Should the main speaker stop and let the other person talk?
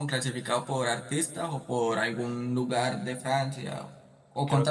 Yes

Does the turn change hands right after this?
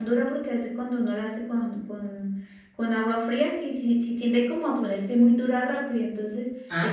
No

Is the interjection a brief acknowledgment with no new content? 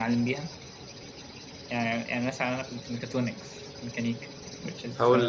No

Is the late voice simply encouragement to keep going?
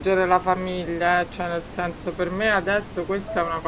Yes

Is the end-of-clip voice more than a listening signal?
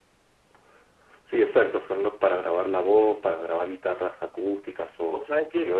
Yes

